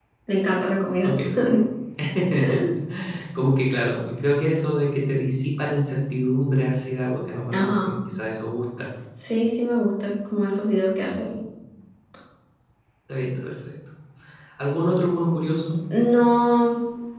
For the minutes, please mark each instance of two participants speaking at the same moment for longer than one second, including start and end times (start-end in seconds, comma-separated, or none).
none